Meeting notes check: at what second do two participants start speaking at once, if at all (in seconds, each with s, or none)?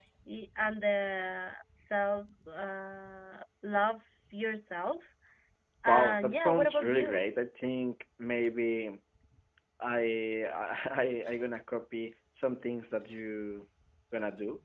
5.9 s